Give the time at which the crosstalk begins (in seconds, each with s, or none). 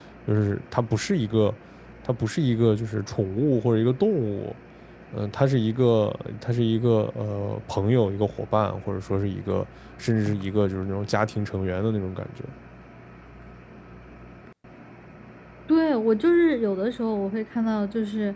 none